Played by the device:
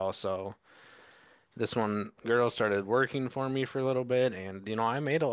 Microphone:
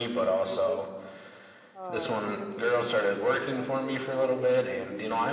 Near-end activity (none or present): present